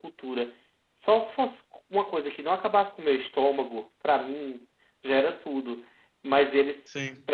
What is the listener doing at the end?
listening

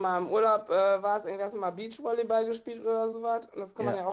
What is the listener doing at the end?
listening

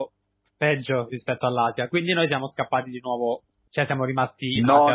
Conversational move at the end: taking over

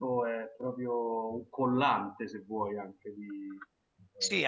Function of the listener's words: taking over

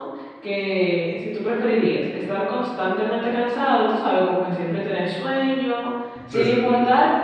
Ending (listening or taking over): listening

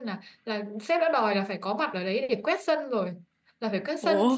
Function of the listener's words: listening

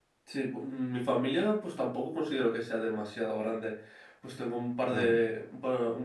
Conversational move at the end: listening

